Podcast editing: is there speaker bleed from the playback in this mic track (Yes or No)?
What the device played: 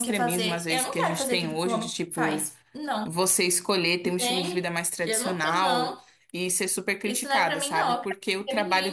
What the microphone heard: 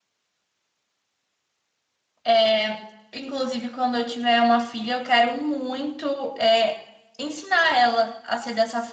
No